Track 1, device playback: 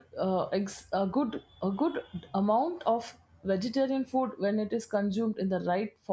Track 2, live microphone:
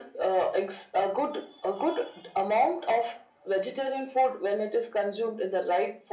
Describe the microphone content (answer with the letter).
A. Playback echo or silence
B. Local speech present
A